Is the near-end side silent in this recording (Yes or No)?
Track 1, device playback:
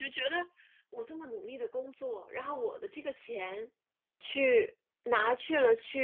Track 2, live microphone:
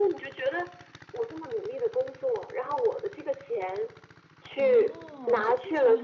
No